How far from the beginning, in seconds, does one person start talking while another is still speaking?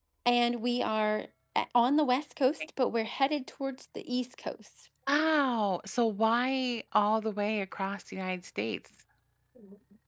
none

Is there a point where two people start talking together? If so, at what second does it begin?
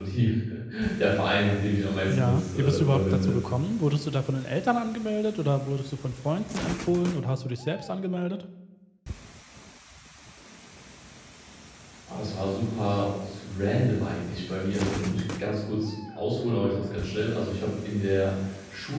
2.1 s

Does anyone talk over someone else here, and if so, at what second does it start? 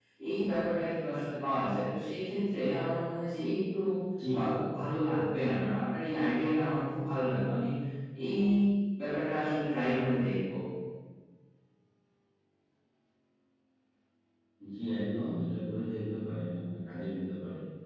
none

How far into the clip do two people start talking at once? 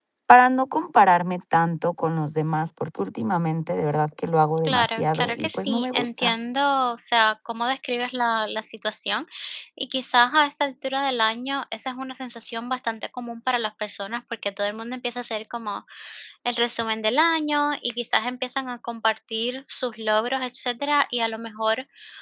4.7 s

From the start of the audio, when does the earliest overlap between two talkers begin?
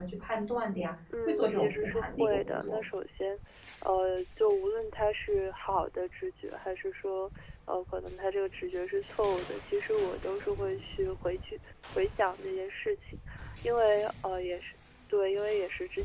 1.3 s

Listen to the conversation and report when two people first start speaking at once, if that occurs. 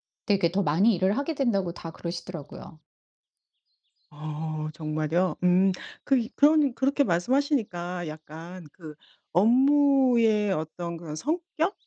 none

